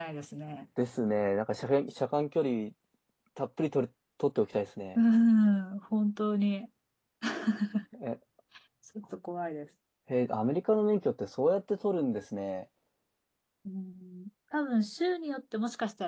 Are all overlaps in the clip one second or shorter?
Yes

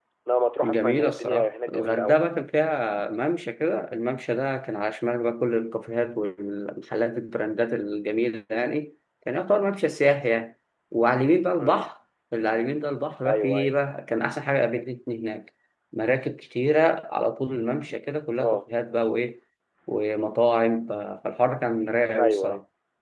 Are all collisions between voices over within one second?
No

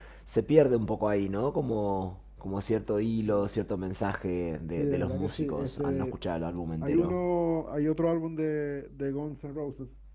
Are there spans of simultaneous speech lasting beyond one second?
Yes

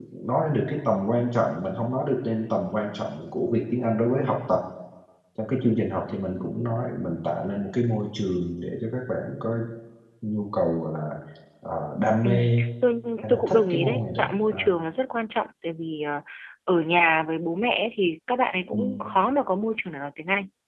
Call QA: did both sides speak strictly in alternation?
No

